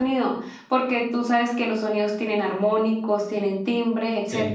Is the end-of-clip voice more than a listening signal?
Yes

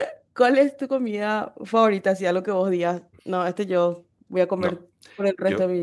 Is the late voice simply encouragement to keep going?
No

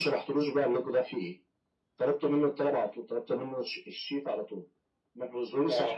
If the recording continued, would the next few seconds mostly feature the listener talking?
Yes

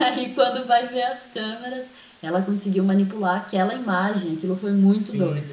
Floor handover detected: Yes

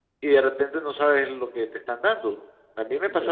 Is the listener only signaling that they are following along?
Yes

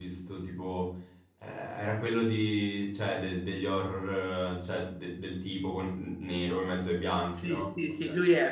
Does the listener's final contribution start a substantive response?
Yes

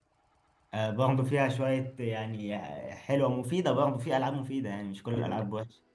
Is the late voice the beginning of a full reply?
Yes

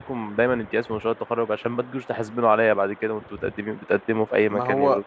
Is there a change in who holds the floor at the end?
Yes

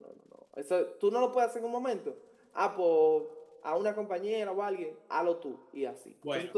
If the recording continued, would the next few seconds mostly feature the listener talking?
Yes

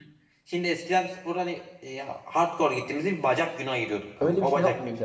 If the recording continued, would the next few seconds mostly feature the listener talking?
Yes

